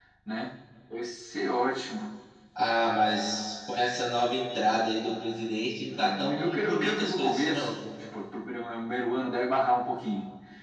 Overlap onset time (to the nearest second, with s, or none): 6 s